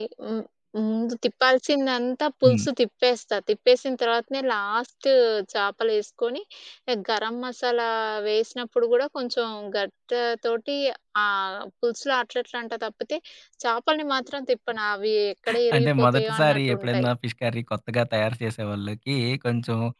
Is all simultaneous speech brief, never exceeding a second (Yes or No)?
No